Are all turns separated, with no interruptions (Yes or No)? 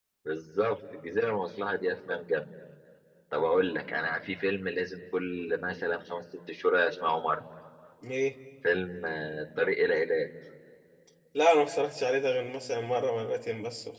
Yes